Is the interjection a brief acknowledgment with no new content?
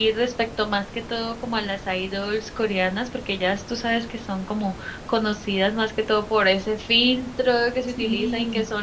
Yes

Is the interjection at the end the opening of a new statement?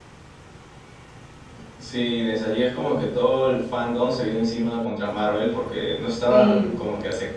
No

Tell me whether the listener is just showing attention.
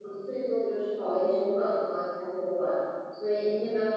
Yes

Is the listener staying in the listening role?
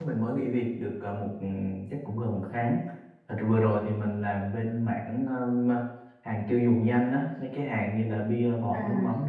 Yes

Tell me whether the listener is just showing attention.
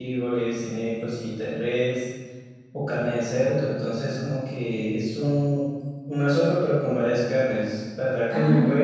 Yes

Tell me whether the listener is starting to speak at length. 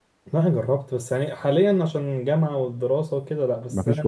No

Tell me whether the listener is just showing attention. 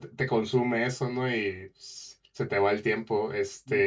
Yes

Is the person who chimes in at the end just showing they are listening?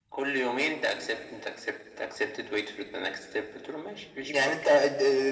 No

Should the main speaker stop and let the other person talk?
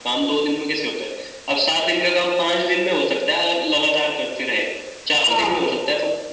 No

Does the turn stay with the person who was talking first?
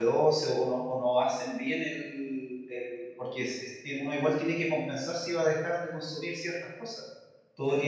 Yes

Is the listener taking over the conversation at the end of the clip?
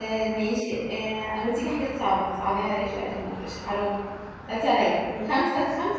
No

